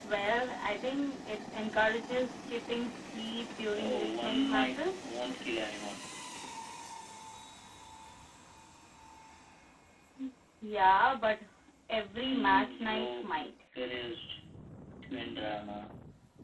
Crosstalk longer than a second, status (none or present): present